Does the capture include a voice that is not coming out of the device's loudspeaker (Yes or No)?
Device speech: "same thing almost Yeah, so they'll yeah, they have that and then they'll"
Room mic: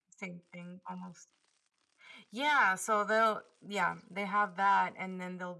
No